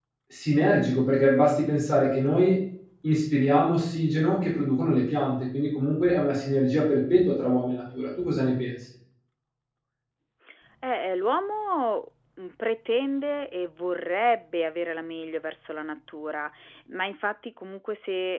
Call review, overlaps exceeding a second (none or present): none